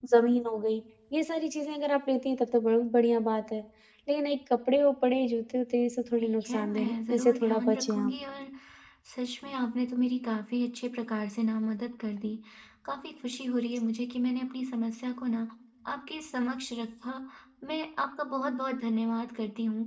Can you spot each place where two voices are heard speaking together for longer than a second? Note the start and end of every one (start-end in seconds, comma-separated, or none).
6.2-8.1